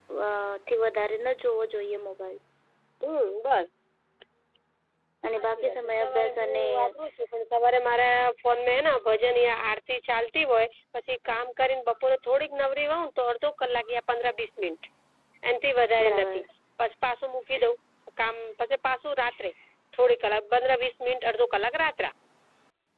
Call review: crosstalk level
present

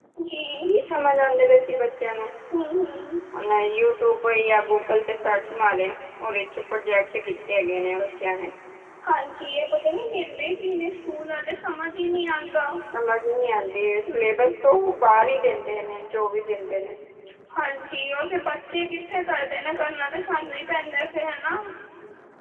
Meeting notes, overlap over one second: none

